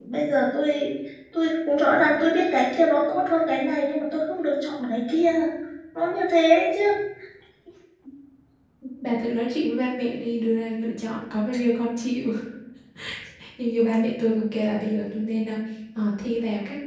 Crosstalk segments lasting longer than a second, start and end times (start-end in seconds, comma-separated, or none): none